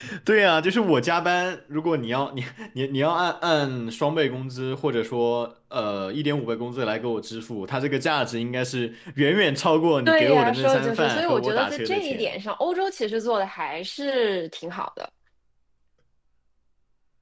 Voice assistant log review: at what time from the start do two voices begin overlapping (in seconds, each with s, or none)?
10.1 s